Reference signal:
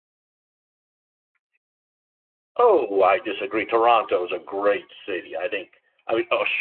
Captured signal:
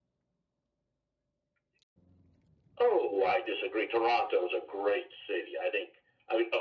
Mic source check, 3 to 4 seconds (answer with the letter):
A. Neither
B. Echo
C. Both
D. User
B